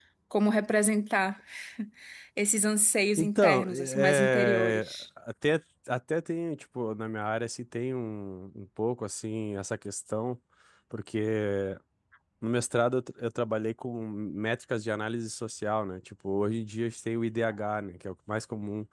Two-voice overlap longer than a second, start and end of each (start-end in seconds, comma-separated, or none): 3.2-5.0